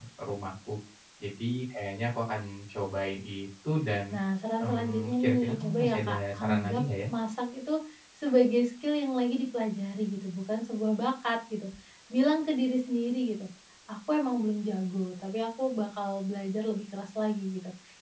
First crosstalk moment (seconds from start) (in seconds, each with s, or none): 4.6 s